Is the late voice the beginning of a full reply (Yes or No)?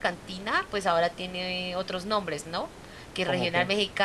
No